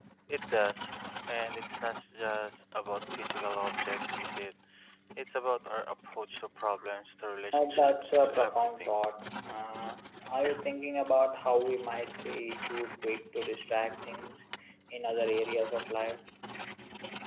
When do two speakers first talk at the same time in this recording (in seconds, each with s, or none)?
7.5 s